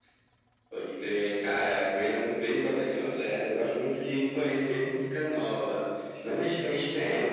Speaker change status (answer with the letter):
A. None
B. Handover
A